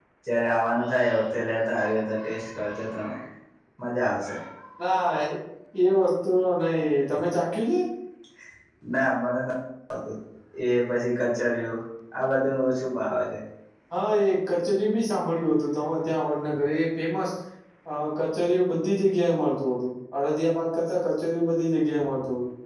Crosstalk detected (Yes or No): No